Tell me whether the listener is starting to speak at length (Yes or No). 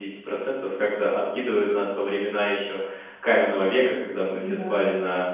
No